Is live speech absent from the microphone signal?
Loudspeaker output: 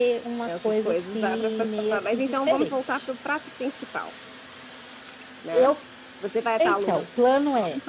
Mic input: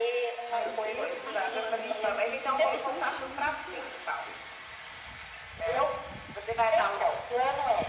No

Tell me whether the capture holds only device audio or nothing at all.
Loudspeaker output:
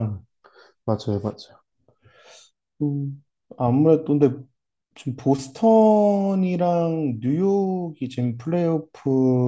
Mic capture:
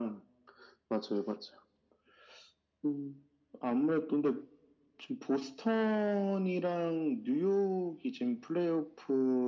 Yes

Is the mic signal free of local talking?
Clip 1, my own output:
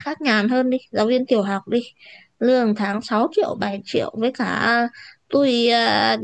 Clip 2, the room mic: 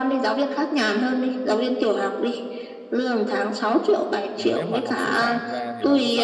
No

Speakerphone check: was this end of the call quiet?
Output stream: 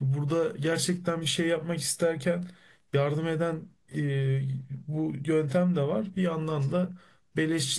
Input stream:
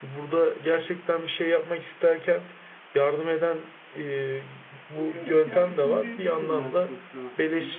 No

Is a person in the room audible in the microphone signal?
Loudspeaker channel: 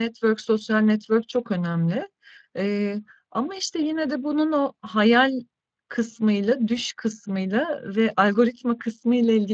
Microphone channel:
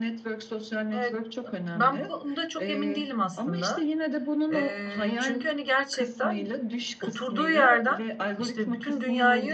Yes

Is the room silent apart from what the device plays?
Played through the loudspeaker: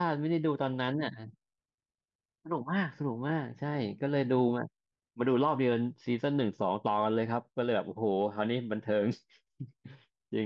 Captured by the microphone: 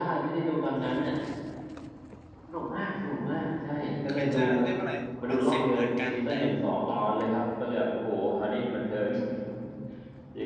No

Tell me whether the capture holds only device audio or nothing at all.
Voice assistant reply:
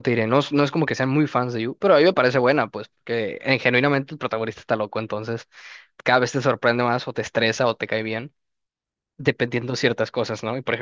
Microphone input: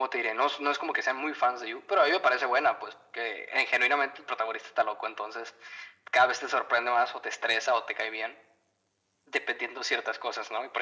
Yes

